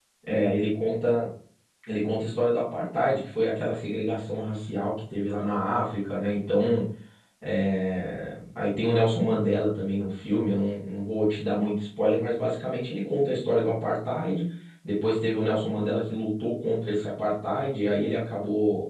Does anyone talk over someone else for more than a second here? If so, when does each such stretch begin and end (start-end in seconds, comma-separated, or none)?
none